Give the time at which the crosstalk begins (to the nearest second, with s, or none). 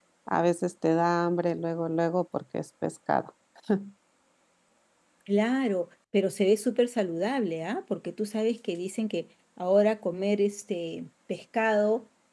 none